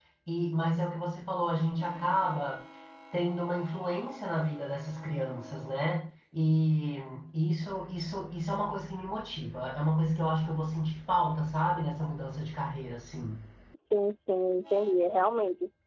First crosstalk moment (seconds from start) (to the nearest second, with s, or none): none